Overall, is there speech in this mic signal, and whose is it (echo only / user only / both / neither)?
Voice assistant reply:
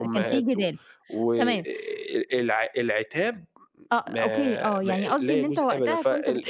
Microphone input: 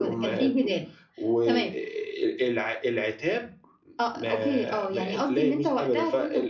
echo only